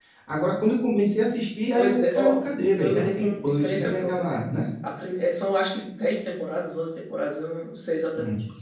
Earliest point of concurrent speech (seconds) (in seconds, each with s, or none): 1.8 s